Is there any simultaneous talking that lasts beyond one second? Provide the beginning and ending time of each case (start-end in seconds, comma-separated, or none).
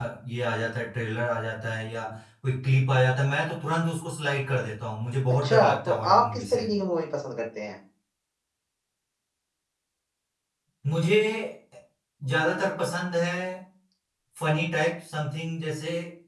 5.3-6.6